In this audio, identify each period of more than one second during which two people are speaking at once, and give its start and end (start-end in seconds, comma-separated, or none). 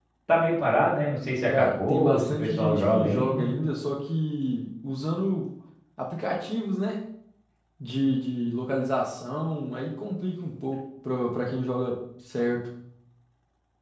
1.5-3.5